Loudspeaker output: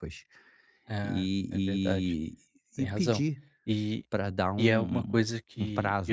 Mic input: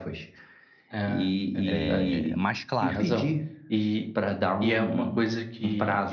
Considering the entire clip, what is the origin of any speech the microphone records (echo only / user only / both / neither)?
both